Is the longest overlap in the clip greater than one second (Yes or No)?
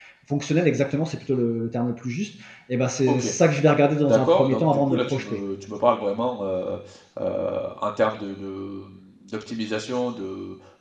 Yes